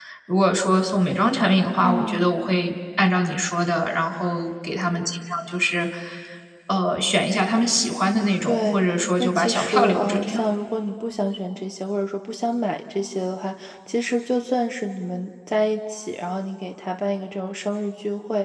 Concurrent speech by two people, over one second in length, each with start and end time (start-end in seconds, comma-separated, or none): 9.2-10.4